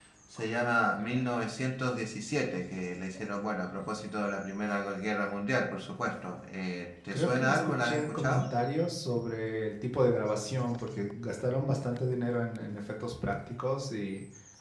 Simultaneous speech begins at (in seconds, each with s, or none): 7.1 s